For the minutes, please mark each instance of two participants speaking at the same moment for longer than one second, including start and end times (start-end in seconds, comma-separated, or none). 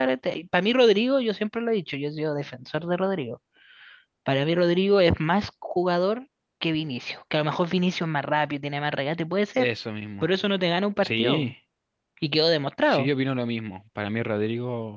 none